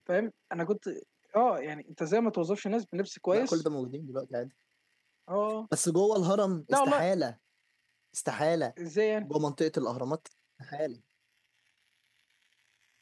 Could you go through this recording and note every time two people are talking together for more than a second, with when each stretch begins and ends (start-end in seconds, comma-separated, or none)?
none